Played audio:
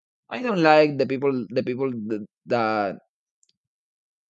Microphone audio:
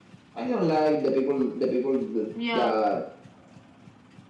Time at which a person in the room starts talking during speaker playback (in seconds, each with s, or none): 2.3 s